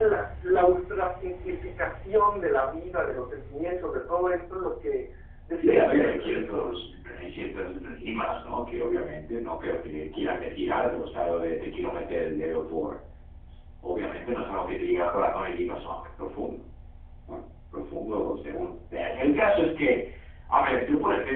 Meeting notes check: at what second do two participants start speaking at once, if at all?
5.5 s

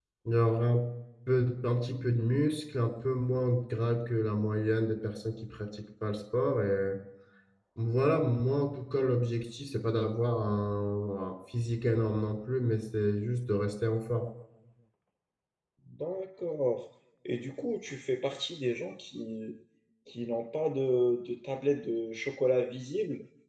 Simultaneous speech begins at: none

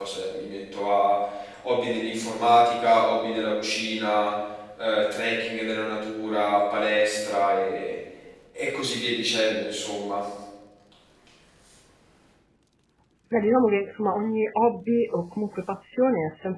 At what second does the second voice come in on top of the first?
none

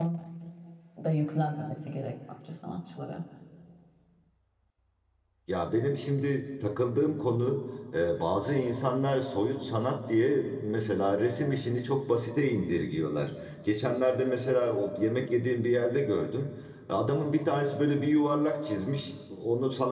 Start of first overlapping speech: none

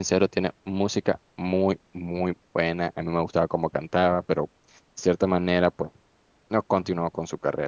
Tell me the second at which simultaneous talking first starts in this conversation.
none

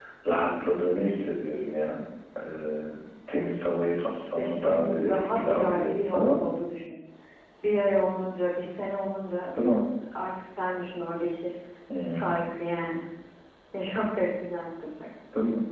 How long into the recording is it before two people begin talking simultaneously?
4.0 s

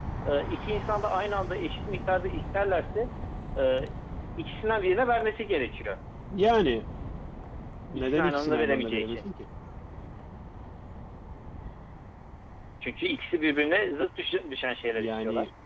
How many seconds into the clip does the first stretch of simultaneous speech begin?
8.0 s

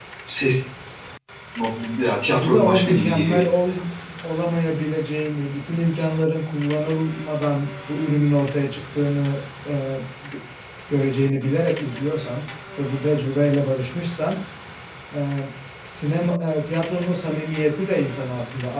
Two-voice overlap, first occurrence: 2.3 s

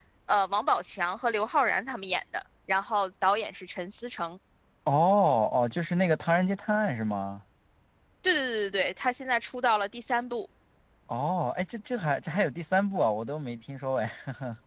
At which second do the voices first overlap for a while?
none

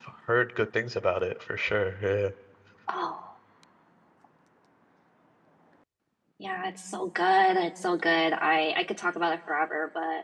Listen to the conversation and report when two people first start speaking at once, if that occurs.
none

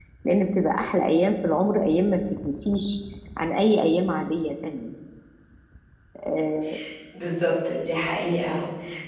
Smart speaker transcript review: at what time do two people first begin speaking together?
none

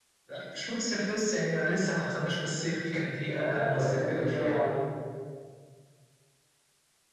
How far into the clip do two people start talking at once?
3.2 s

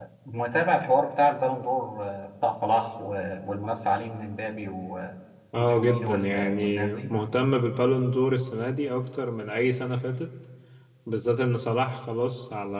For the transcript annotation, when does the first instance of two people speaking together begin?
5.6 s

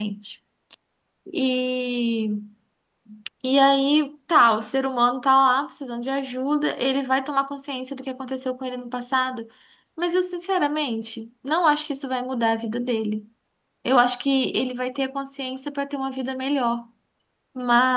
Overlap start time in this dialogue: none

